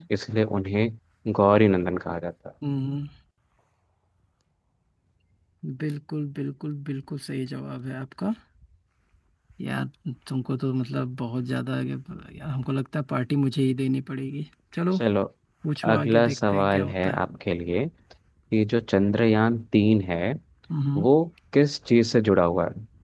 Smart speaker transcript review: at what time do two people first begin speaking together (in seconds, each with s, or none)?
15.9 s